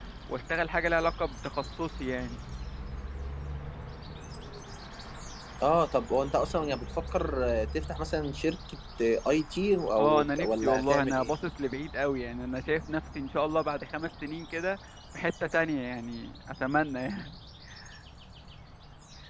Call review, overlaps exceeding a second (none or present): present